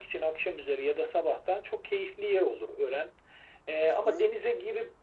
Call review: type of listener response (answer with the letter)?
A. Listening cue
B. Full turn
A